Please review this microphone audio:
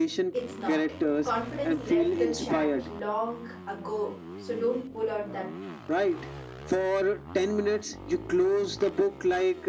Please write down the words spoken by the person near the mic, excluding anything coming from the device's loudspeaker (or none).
it's not. Confidence left the chat long ago, so don't pull out that